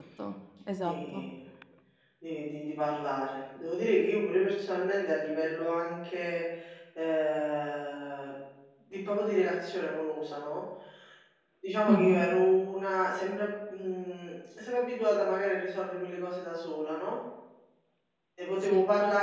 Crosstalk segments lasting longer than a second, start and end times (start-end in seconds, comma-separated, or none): none